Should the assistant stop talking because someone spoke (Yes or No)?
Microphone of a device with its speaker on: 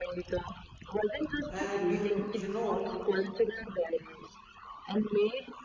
Yes